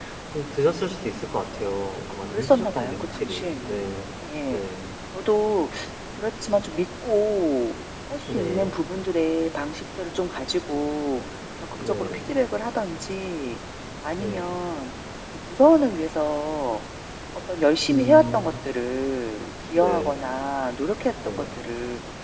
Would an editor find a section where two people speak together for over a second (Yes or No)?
Yes